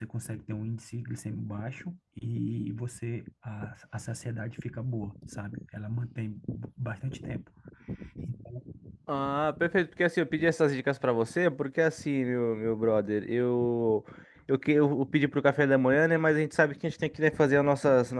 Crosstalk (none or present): none